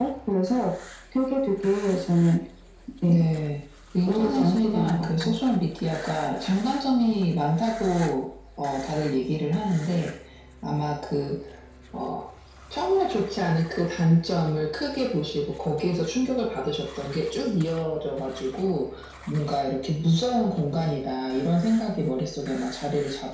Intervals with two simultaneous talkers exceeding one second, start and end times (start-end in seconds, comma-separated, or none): 4.0-5.3